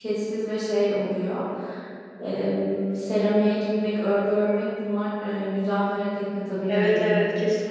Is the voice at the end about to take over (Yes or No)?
Yes